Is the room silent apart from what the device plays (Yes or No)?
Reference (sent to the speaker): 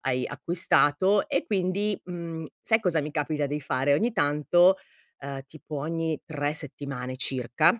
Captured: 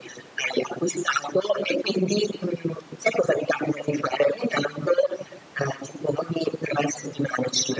Yes